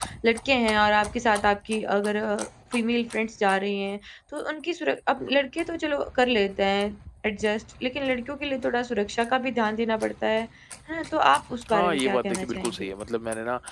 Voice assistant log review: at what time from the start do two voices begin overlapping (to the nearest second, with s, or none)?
12 s